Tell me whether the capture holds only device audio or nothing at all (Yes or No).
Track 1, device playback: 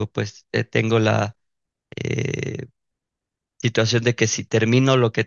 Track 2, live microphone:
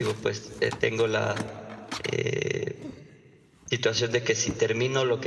Yes